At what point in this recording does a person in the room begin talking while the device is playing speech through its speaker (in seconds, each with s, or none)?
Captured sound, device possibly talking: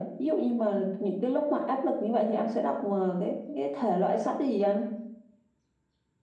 none